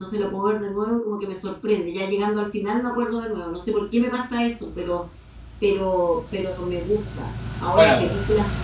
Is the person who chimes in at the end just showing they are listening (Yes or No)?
Yes